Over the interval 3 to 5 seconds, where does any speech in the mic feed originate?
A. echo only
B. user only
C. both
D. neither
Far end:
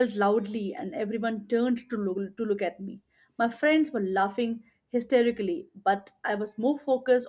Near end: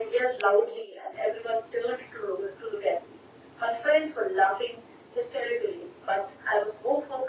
A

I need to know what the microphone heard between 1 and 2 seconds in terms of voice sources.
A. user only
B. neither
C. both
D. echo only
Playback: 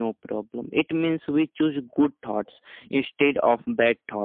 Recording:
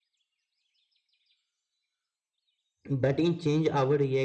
B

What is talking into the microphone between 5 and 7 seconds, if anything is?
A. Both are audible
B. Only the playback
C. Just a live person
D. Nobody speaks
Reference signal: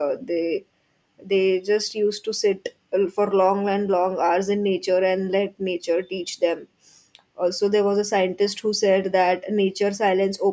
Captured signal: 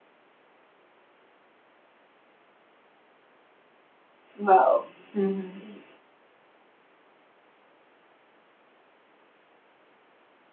C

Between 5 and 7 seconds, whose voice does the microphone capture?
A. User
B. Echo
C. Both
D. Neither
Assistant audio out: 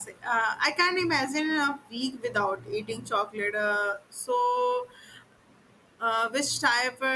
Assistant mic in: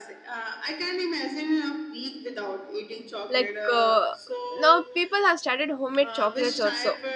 C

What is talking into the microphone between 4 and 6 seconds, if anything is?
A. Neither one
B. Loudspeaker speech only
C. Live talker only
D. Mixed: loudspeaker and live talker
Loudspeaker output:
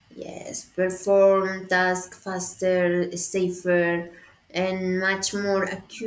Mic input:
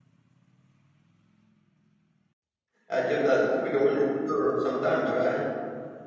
C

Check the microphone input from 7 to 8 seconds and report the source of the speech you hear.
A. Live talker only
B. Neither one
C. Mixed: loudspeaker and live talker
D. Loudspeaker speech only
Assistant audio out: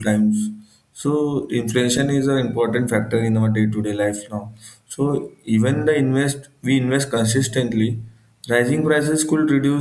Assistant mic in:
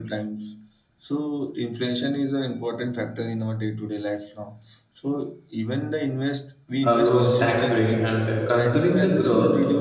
C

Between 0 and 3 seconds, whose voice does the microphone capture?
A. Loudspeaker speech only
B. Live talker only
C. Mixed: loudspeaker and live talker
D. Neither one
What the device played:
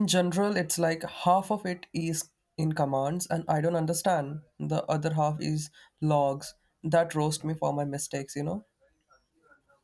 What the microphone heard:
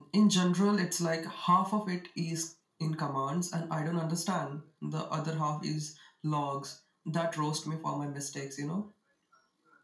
A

